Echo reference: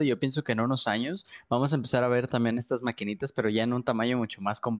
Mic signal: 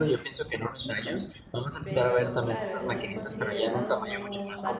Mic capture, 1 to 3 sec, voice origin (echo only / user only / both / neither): both